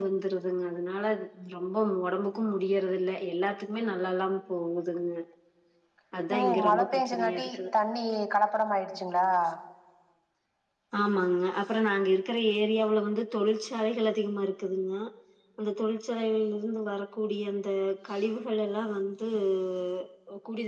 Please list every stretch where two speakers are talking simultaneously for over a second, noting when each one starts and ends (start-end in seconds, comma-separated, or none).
6.4-7.6